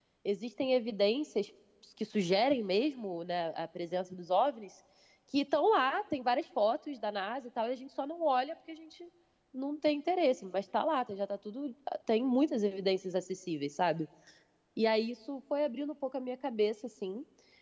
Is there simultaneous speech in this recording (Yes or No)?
No